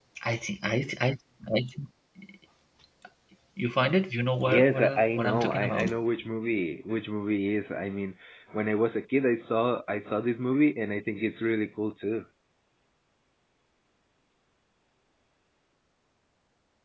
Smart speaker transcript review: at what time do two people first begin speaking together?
4.5 s

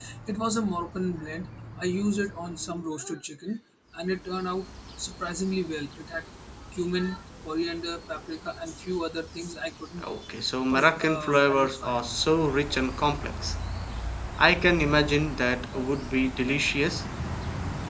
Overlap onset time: 10.7 s

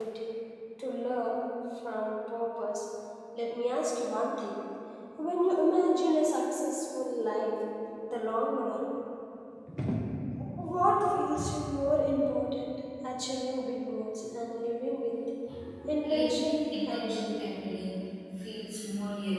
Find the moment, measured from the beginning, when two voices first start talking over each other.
16.1 s

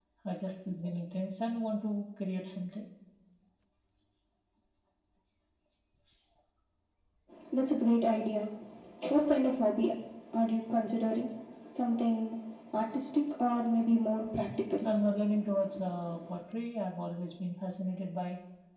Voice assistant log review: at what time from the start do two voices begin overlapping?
none

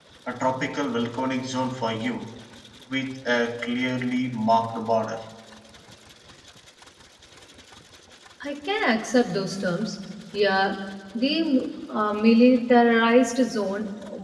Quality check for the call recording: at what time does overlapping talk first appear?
none

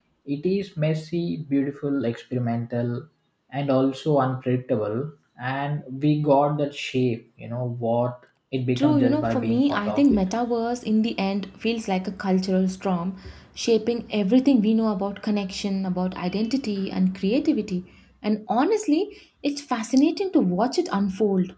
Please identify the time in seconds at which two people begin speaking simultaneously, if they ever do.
8.8 s

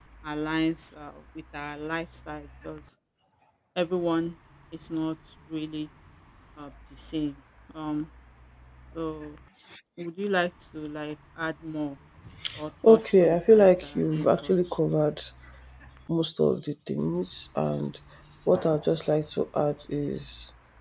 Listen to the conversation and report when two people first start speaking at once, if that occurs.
12.9 s

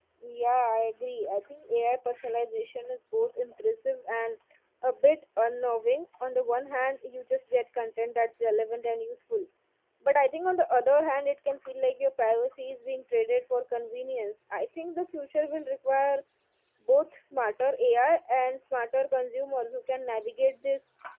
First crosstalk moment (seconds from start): none

